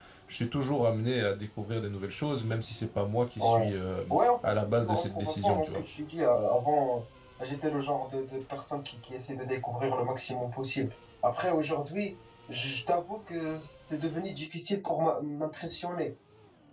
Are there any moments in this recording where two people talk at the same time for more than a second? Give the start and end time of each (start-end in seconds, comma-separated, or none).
4.4-5.8